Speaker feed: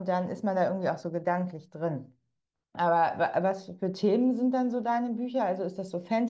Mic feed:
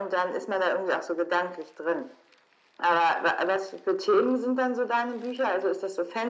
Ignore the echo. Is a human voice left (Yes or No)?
No